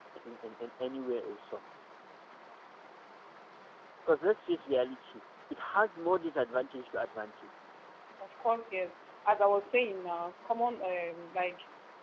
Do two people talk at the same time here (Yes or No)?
No